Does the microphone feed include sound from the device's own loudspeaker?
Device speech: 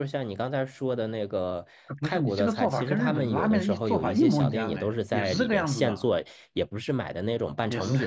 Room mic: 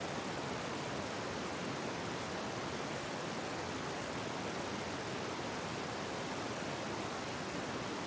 No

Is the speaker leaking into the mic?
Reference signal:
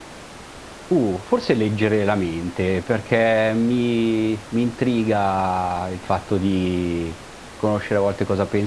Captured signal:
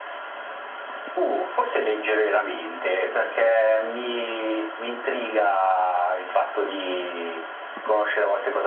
Yes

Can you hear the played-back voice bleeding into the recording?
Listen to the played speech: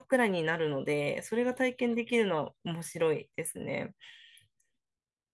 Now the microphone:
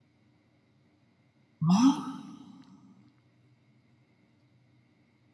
No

